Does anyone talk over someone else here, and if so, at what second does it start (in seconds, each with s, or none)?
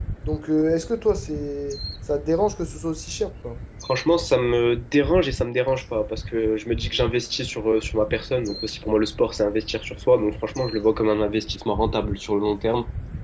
none